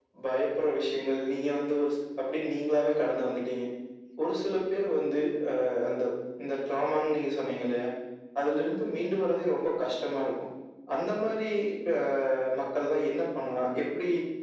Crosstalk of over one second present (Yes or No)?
No